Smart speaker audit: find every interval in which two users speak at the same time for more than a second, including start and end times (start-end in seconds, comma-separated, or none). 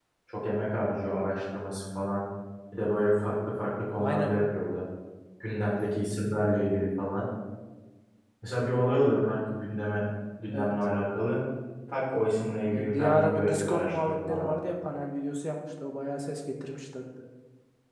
12.8-14.5